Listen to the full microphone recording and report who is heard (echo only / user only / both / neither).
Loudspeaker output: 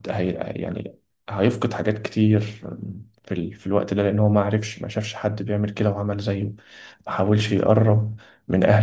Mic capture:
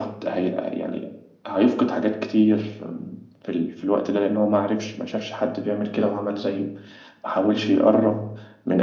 echo only